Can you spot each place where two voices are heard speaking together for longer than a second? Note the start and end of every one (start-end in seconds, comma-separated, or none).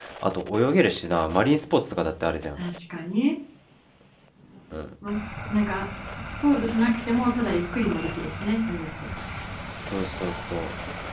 none